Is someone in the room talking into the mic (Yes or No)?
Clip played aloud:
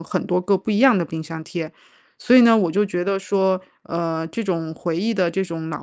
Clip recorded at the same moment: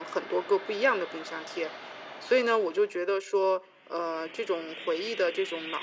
No